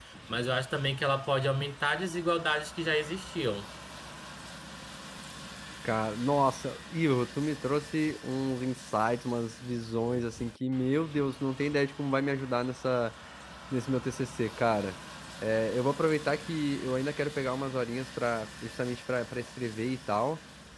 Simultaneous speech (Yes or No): No